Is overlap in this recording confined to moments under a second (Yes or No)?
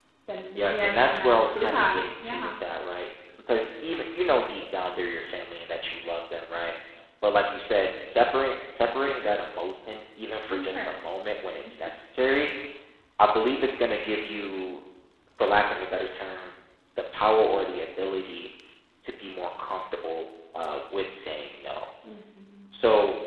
No